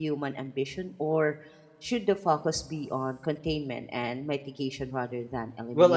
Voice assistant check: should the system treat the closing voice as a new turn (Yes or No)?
Yes